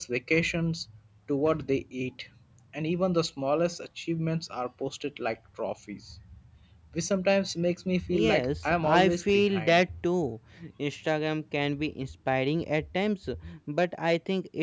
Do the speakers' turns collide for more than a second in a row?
Yes, from 7.9 s

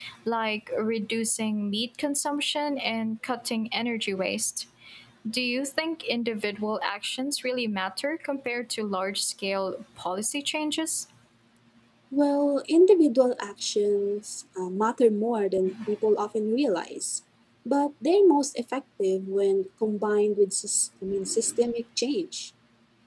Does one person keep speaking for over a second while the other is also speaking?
No

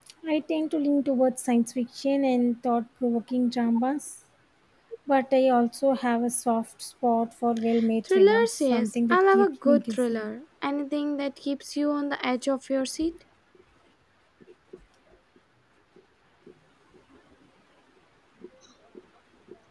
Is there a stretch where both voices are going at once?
Yes, from 8.1 s

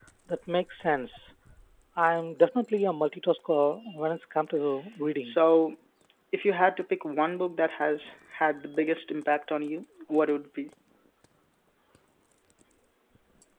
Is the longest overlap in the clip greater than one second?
No

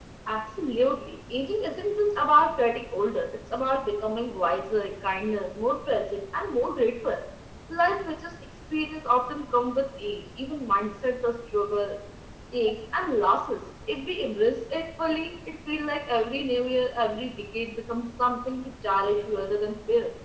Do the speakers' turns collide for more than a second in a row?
No

